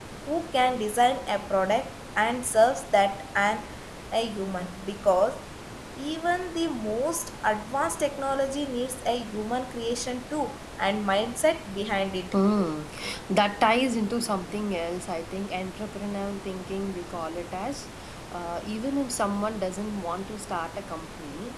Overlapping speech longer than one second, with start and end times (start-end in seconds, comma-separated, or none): none